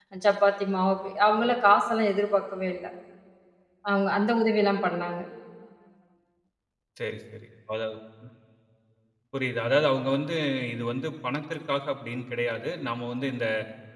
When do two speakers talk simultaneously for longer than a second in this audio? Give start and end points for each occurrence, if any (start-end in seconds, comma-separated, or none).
none